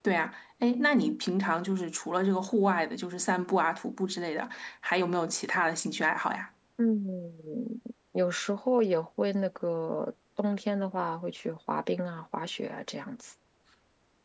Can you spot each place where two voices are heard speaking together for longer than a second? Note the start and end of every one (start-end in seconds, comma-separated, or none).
none